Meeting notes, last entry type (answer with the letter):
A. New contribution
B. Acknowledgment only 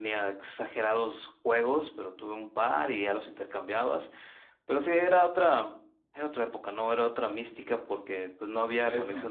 B